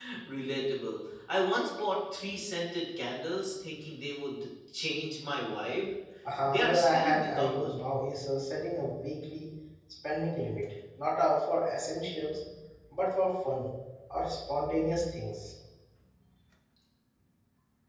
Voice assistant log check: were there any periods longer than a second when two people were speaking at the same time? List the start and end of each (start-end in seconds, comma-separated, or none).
6.5-7.7